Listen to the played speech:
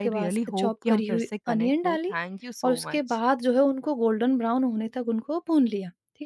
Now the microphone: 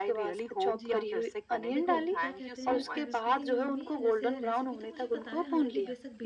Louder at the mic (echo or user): echo